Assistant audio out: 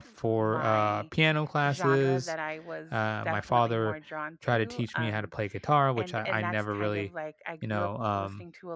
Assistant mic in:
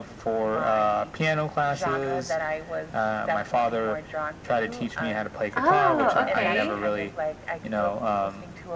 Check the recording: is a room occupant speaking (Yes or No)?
Yes